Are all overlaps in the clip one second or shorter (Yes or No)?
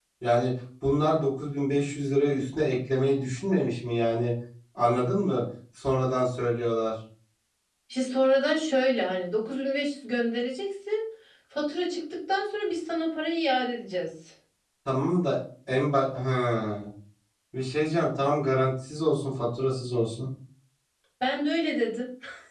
Yes